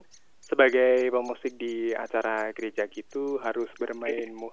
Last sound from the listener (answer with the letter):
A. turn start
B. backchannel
B